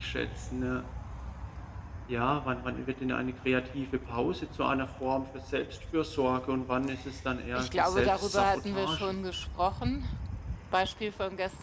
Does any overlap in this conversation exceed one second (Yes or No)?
Yes